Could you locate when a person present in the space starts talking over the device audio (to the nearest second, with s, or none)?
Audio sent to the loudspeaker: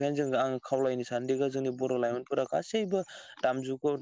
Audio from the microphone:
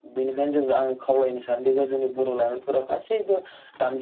none